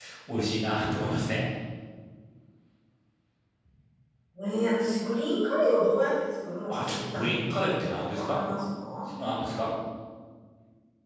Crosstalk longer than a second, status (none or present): present